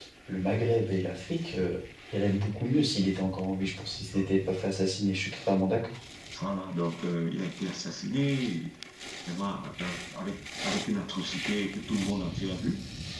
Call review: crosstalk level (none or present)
none